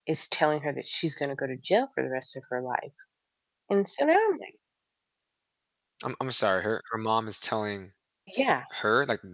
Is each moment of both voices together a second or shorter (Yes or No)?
Yes